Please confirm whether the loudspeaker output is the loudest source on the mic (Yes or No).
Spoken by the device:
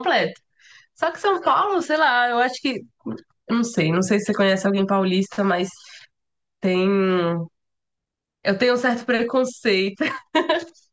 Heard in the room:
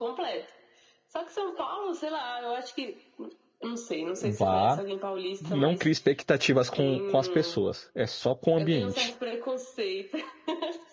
No